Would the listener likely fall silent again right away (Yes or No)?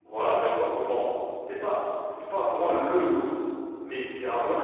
Yes